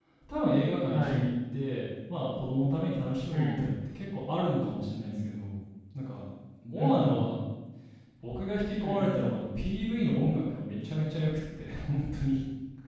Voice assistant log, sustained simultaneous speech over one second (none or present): none